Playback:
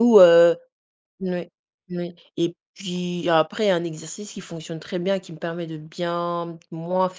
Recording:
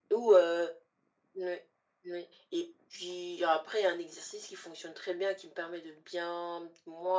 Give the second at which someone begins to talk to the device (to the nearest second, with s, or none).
none